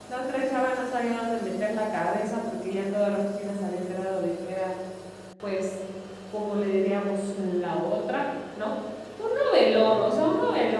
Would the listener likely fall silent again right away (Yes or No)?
Yes